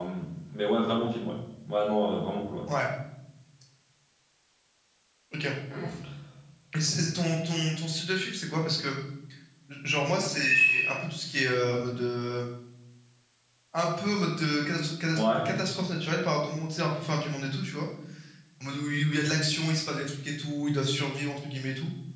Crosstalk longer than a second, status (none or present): none